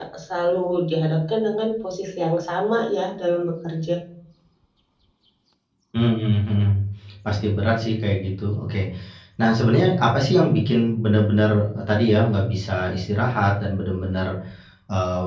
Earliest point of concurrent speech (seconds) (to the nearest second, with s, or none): none